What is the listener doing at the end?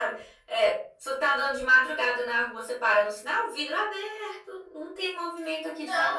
taking over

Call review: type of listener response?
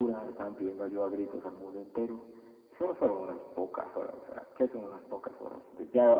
taking over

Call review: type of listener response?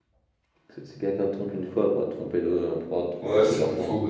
taking over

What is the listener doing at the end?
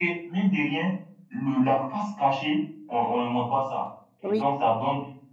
listening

